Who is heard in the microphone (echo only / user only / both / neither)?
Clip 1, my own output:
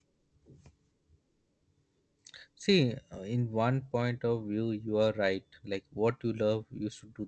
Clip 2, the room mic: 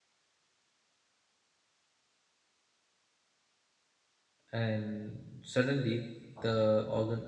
user only